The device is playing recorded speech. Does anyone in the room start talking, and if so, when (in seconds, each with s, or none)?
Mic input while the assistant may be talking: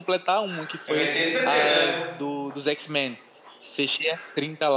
0.9 s